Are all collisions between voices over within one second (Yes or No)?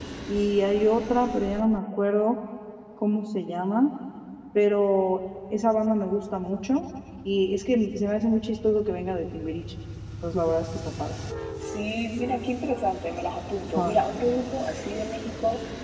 Yes